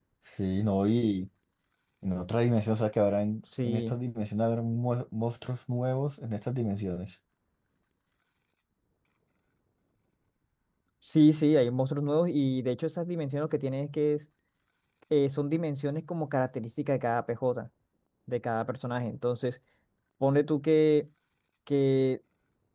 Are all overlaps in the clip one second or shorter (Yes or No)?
Yes